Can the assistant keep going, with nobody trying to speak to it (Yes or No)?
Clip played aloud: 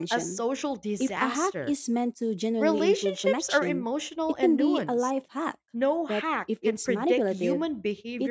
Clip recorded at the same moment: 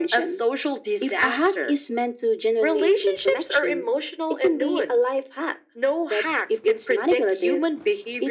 Yes